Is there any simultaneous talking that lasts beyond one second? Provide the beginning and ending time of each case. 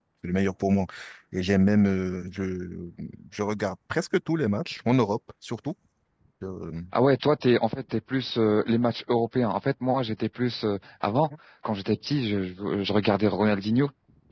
none

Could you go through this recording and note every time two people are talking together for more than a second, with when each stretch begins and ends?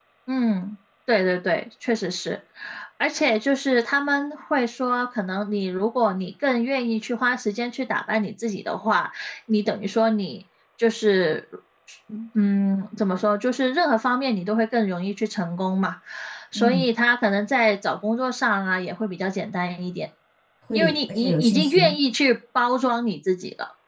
20.7-21.9

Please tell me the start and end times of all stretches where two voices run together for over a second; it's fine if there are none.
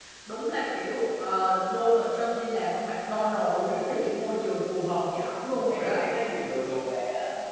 none

